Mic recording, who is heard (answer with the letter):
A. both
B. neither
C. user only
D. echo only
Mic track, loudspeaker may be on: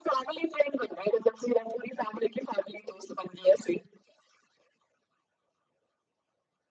D